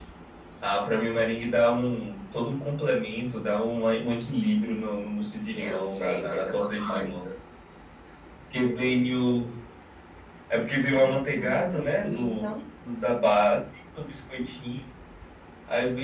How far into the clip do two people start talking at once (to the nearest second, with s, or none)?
6 s